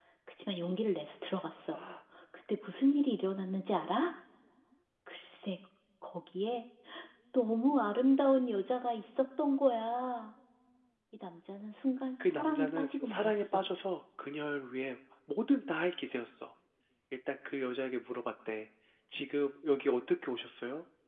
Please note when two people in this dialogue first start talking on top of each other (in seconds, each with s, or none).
12.2 s